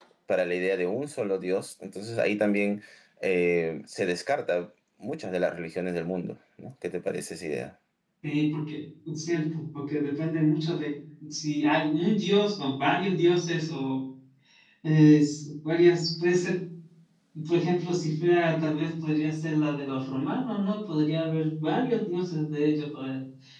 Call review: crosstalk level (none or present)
none